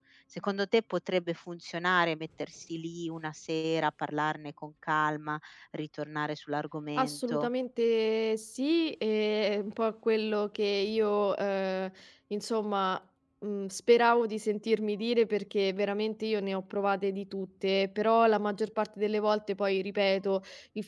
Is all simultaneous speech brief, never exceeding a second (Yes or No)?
Yes